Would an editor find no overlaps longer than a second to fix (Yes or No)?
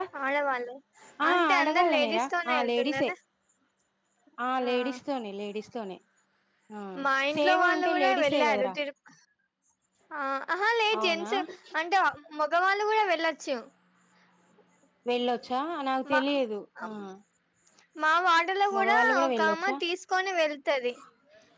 No